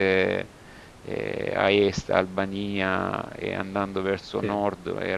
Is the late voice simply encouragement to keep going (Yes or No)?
Yes